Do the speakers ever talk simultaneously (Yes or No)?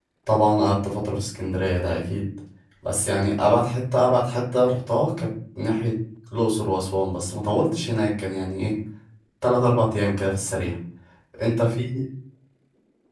No